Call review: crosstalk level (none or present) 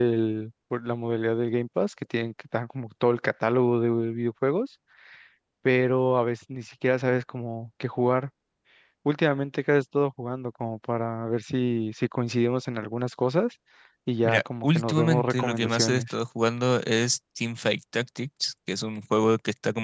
present